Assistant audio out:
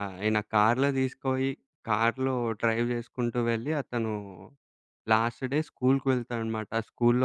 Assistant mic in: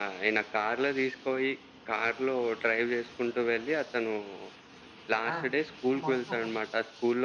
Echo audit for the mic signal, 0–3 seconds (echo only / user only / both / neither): echo only